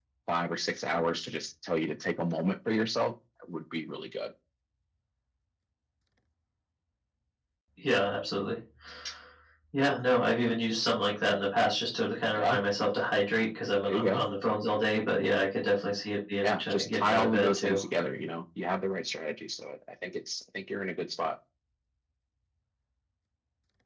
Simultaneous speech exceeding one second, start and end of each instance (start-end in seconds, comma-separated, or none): 16.4-17.8